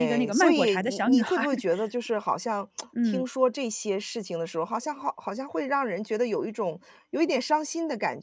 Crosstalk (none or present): present